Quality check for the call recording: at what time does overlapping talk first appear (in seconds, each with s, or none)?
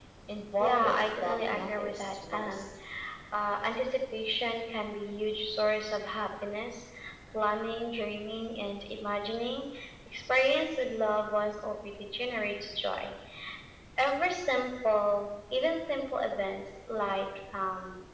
0.6 s